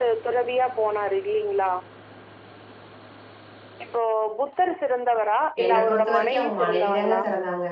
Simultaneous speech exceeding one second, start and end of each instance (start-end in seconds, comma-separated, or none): 5.6-7.2